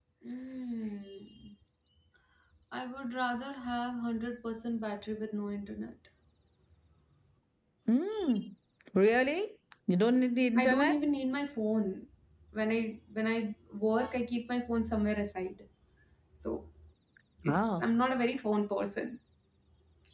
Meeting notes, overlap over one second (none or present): none